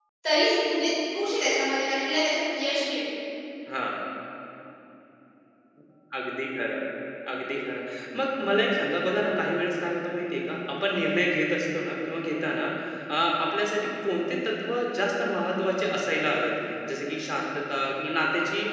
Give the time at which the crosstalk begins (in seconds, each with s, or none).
none